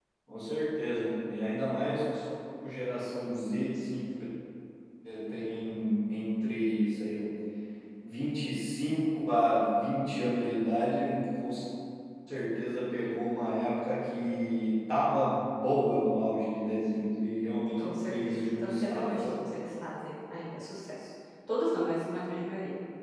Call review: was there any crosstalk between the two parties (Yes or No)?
Yes